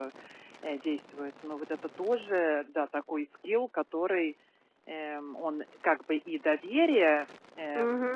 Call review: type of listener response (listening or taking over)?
taking over